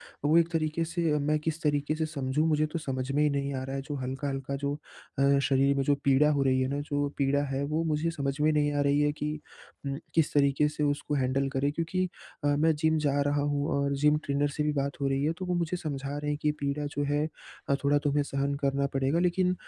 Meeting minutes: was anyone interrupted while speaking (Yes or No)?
No